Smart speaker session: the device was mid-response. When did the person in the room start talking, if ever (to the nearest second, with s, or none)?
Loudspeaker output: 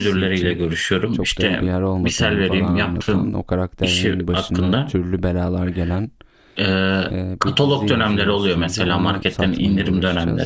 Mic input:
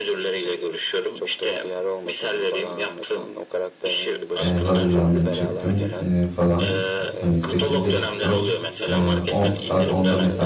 4 s